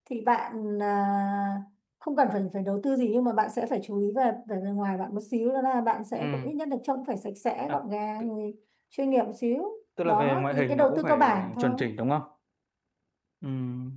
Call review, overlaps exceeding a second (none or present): present